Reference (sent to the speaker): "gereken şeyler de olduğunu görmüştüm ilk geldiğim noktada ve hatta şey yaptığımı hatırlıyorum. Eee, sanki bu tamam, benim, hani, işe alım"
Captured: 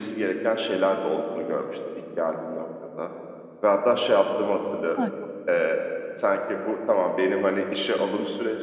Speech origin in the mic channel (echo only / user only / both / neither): both